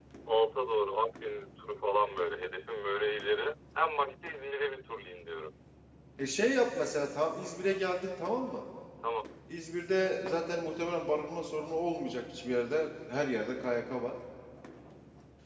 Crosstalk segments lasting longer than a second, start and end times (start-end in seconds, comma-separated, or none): none